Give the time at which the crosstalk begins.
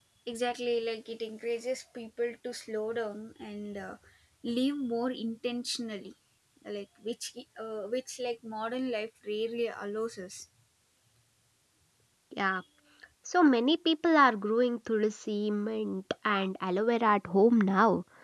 none

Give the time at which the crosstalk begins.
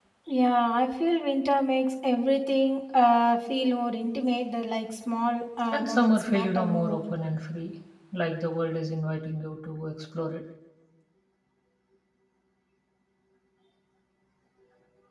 5.7 s

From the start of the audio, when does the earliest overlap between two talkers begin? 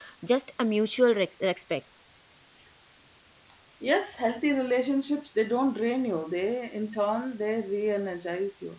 none

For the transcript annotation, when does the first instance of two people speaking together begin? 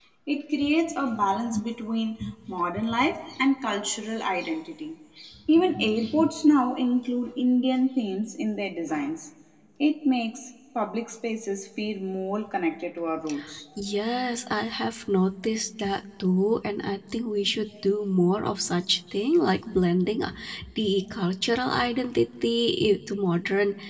none

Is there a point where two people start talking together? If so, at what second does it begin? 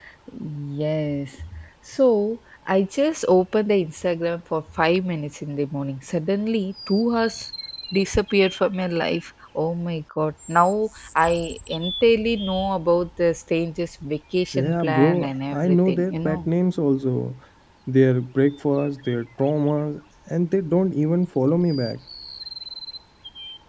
14.5 s

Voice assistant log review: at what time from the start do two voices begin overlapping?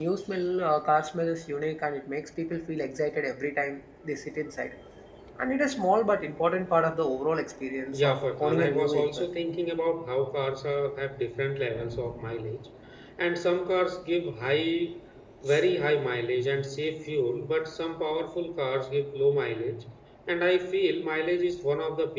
7.9 s

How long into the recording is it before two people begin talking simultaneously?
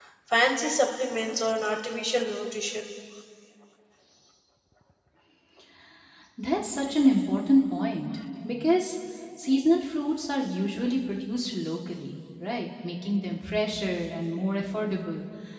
none

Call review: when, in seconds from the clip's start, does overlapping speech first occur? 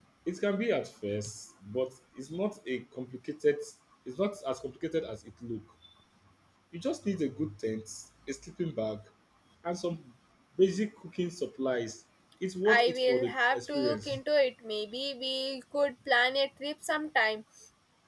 12.6 s

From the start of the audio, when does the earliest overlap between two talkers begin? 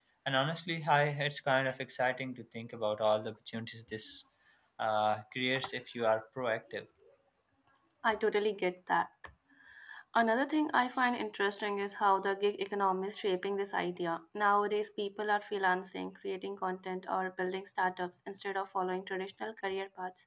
none

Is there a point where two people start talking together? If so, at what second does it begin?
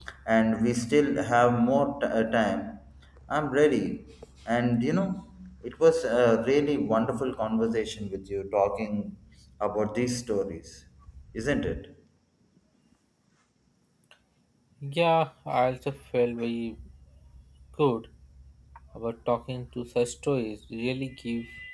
none

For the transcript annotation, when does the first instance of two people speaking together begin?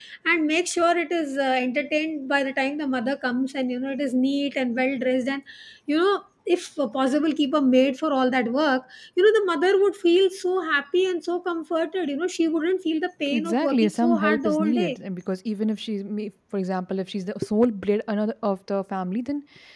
13.3 s

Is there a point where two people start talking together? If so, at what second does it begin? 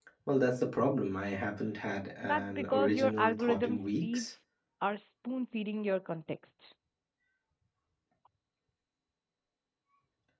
2.2 s

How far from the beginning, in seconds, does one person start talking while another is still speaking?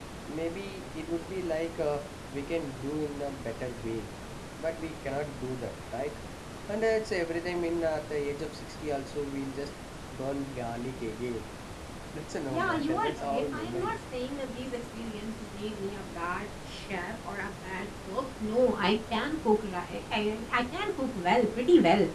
12.5 s

